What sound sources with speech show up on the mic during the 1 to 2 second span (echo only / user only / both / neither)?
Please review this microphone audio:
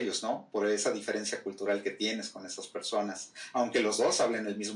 echo only